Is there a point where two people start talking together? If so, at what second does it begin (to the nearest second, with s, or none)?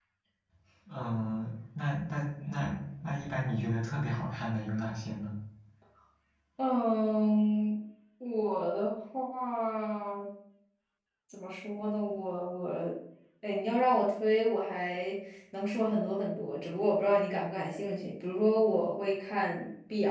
none